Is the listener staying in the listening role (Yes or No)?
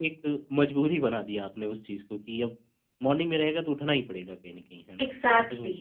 No